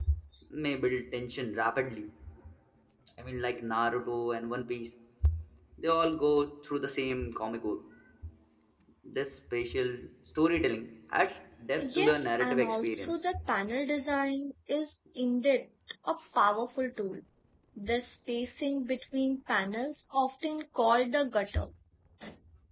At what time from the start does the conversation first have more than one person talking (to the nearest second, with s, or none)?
12 s